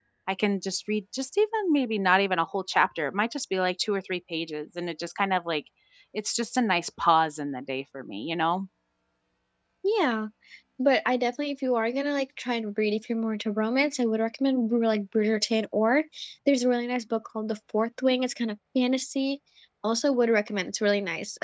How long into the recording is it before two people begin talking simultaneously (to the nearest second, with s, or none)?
none